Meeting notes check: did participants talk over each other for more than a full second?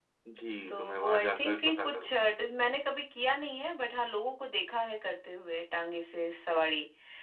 Yes, from 0.7 s

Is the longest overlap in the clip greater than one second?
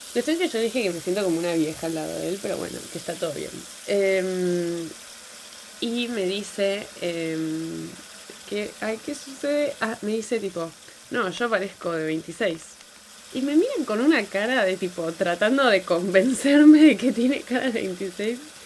No

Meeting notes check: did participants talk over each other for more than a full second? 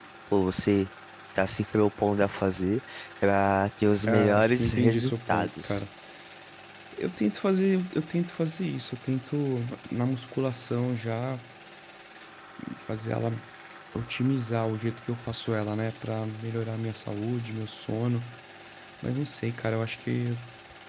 Yes, from 4.1 s

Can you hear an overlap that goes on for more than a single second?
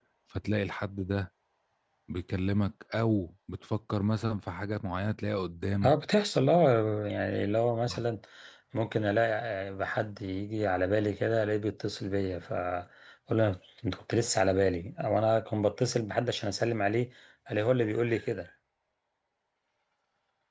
No

